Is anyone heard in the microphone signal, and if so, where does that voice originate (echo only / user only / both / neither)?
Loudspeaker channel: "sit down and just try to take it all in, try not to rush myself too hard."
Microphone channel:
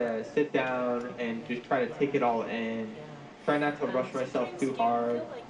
both